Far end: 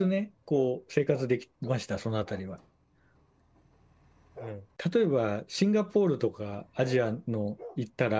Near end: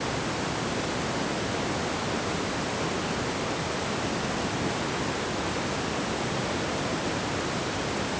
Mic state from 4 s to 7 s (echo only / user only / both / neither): neither